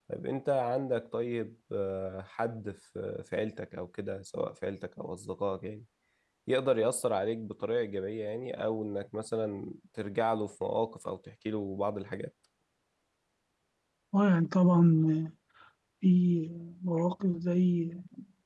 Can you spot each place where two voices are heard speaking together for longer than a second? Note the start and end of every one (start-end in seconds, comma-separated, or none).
none